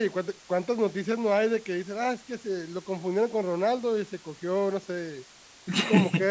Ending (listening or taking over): listening